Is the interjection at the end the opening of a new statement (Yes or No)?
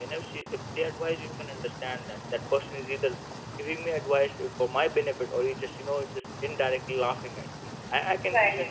No